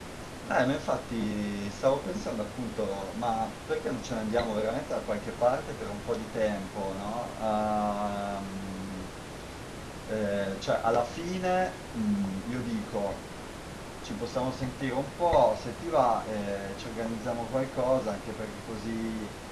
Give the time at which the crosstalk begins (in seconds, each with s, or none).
none